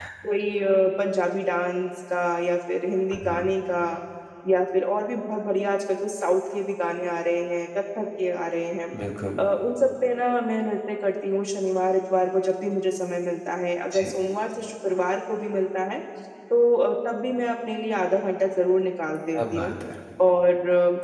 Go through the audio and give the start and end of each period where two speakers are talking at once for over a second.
none

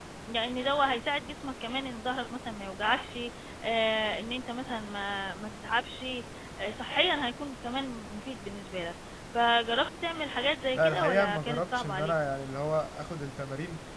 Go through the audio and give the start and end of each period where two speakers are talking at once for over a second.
10.7-12.1

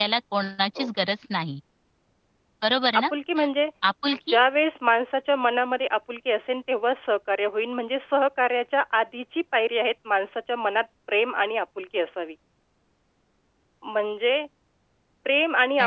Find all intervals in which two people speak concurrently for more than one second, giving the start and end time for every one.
none

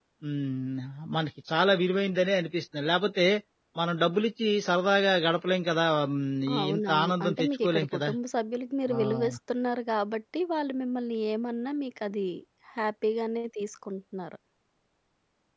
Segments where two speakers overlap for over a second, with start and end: 6.6-8.1

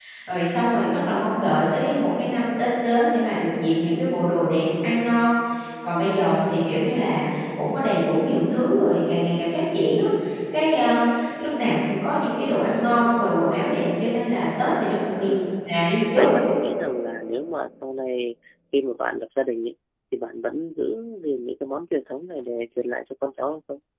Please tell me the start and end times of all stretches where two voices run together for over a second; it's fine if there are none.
none

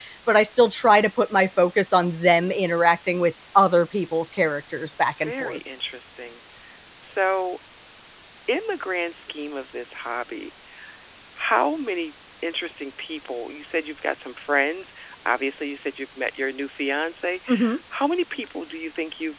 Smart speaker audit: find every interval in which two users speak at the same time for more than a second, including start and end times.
none

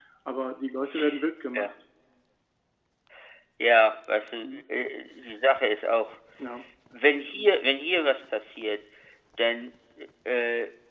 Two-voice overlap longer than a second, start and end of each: none

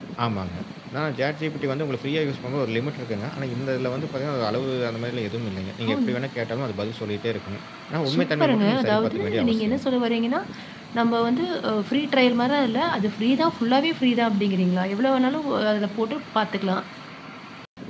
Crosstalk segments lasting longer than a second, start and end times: 8.1-9.8

